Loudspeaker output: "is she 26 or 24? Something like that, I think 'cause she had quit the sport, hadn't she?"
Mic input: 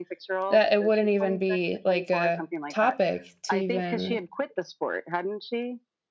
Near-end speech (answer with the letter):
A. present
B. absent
A